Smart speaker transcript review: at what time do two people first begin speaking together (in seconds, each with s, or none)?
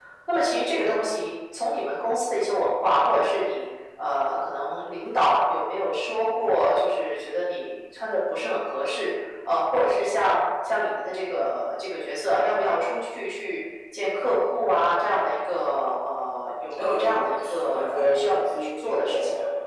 16.7 s